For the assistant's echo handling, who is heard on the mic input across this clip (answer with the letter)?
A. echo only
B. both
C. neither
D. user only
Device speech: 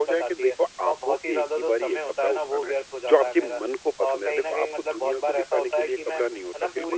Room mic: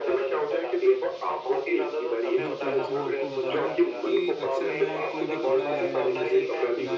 B